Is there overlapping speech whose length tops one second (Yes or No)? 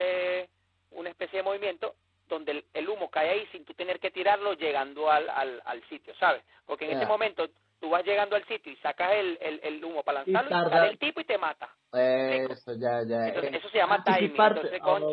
Yes